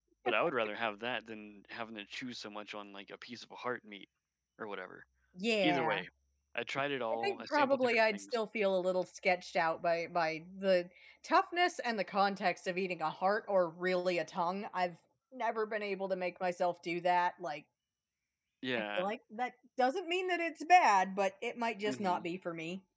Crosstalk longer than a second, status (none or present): present